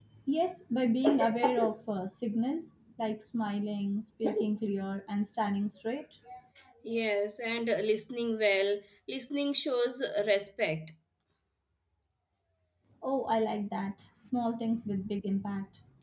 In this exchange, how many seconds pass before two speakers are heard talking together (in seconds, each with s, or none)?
none